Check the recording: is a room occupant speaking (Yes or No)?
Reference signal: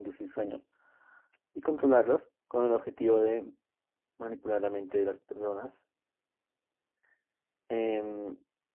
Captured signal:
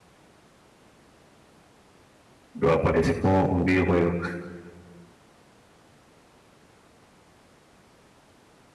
Yes